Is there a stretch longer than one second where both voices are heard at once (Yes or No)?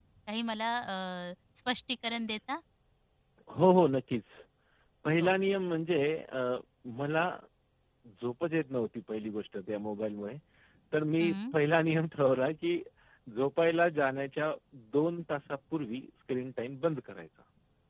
No